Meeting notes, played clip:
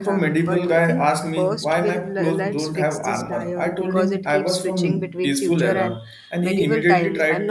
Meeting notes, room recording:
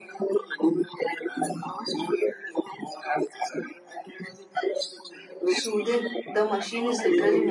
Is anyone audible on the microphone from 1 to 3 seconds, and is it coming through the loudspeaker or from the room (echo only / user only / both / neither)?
echo only